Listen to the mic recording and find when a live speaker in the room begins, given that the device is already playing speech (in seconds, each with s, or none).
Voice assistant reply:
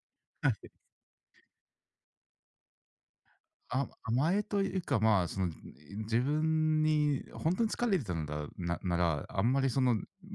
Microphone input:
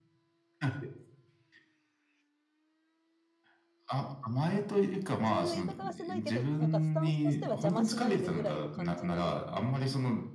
5.2 s